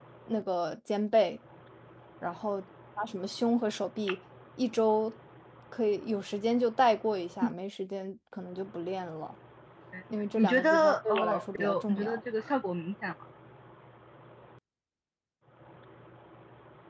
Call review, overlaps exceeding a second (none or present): present